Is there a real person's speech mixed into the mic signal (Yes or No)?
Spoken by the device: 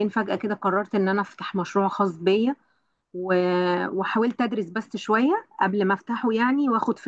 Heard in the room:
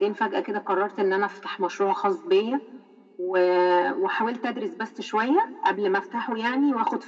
No